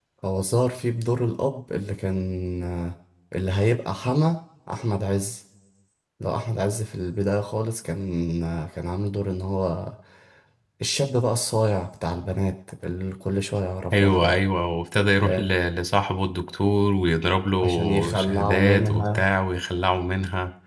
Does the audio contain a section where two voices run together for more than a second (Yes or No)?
Yes